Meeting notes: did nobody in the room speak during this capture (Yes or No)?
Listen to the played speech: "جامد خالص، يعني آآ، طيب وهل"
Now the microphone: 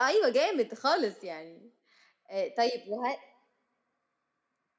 Yes